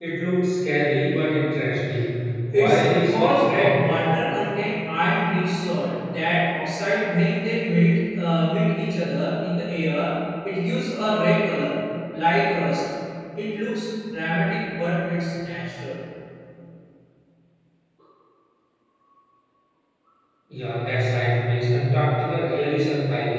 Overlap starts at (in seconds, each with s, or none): 2.5 s